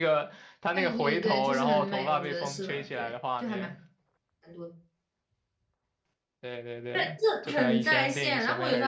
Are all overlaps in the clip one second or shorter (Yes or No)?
No